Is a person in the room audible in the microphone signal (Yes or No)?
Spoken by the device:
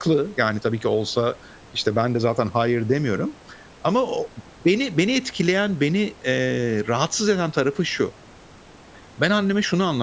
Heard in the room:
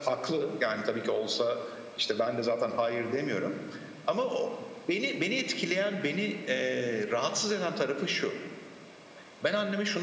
No